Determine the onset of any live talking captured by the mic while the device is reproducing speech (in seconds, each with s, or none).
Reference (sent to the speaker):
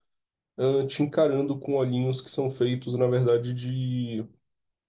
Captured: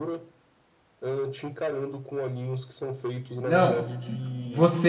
3.4 s